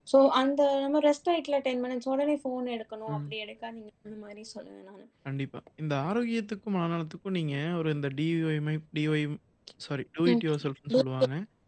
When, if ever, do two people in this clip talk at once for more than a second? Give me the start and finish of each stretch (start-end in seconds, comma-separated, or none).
none